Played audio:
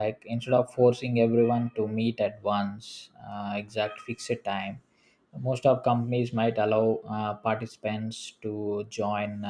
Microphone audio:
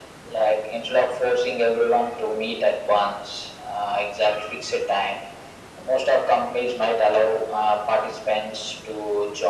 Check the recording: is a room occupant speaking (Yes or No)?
No